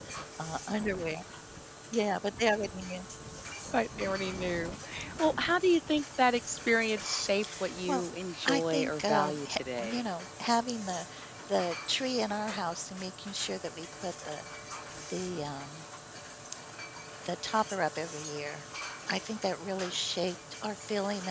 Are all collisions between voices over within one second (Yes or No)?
No